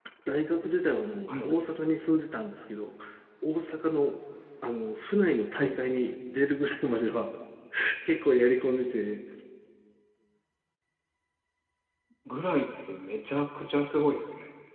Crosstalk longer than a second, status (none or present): none